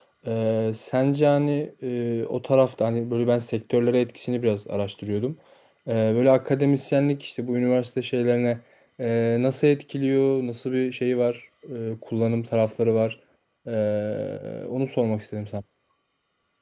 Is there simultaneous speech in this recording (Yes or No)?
No